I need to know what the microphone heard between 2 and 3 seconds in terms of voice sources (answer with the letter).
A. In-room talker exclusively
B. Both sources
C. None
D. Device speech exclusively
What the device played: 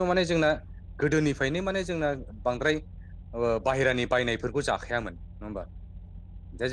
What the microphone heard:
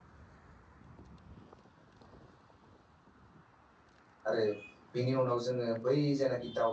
C